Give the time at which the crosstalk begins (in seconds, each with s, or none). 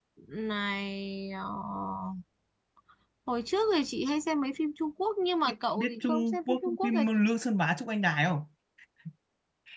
5.8 s